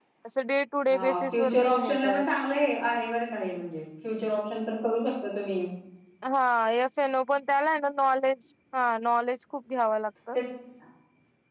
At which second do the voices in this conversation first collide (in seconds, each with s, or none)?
0.9 s